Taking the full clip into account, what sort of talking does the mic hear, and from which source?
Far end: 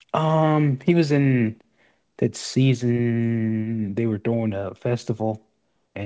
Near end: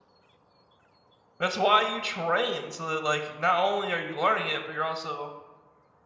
user only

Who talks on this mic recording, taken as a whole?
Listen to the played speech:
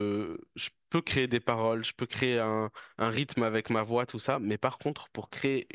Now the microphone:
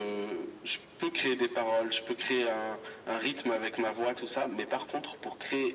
echo only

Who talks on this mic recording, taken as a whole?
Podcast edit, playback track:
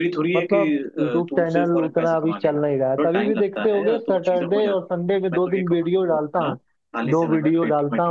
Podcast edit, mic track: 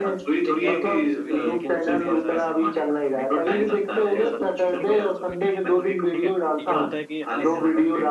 both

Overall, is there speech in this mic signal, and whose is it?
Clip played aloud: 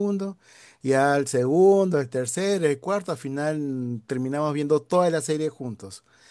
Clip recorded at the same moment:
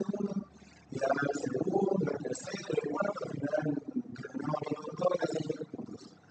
echo only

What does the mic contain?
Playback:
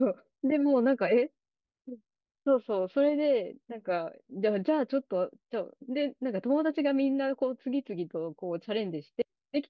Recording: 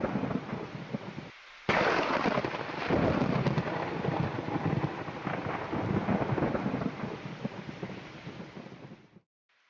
neither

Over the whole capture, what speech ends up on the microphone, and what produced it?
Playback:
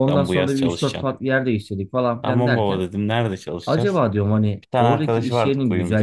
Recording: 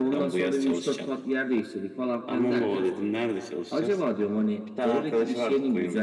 echo only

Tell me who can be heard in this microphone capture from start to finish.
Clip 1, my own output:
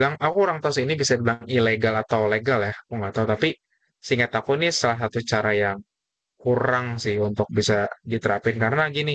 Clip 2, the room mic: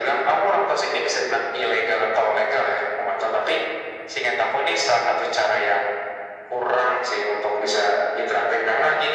echo only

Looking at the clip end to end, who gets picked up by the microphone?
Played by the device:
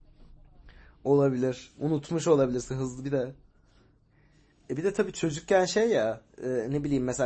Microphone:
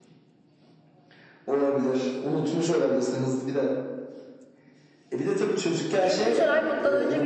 both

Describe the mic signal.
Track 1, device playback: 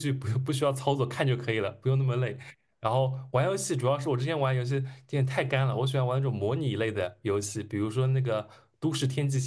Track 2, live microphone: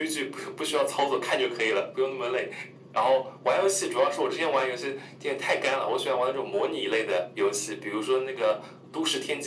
echo only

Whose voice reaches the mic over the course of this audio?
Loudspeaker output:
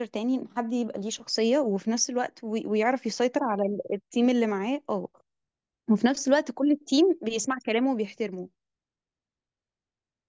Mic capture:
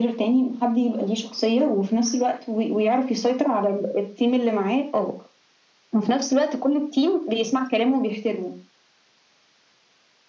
echo only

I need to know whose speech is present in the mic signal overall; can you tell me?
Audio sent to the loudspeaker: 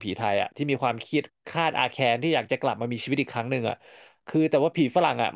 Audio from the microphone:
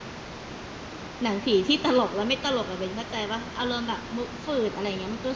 user only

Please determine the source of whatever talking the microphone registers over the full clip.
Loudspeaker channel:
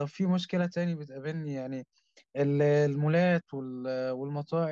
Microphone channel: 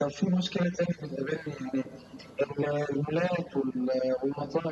echo only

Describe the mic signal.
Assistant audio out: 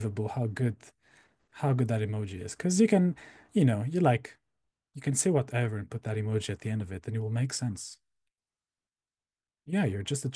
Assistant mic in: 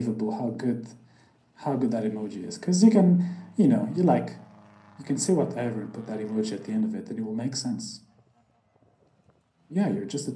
echo only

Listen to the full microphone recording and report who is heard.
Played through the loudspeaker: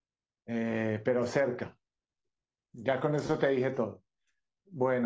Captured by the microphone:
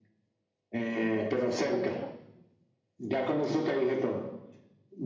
both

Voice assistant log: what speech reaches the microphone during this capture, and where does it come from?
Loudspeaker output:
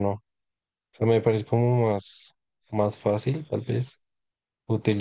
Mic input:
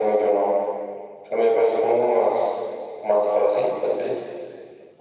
echo only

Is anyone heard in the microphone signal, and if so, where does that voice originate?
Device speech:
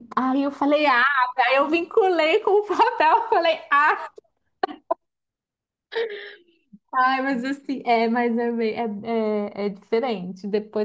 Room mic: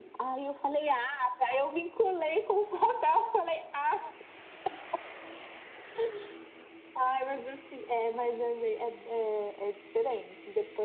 echo only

